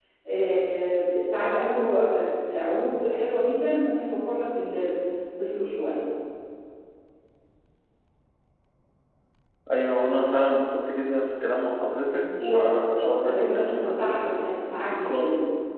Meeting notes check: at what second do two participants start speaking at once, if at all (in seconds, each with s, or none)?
12.4 s